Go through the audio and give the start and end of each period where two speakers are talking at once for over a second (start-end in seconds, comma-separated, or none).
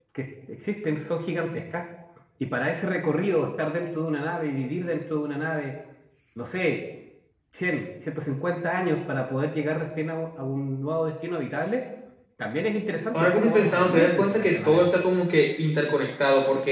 13.1-14.8